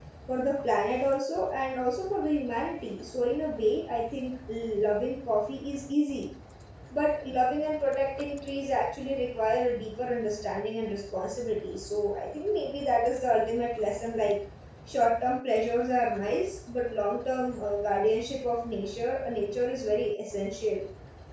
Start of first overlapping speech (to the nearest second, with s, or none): none